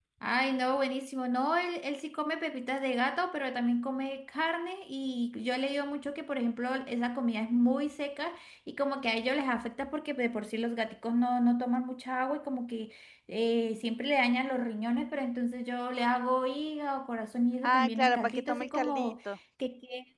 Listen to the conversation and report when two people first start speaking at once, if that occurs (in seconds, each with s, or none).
17.6 s